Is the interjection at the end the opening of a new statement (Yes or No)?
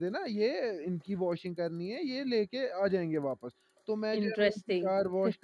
No